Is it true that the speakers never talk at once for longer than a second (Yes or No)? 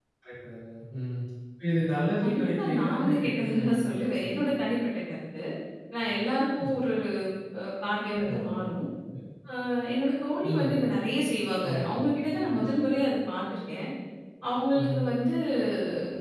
No